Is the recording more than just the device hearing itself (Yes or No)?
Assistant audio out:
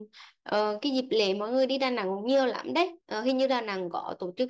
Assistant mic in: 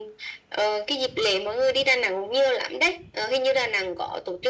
No